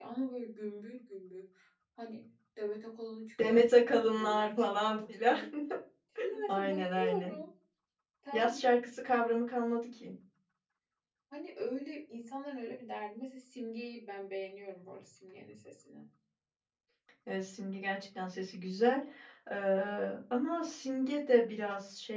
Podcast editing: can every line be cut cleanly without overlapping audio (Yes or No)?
No